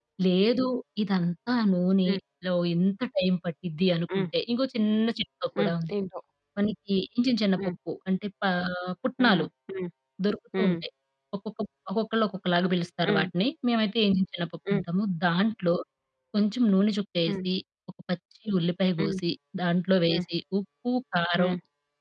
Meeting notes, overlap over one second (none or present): none